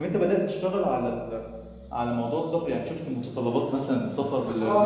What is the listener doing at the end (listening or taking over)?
taking over